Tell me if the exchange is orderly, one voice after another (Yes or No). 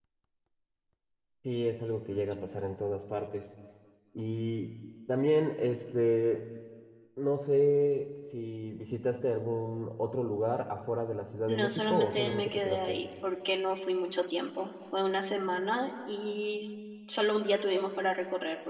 No